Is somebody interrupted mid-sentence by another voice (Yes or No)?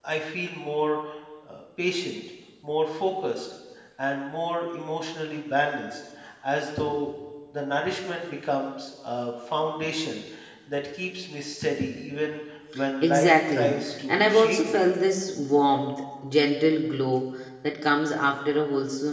Yes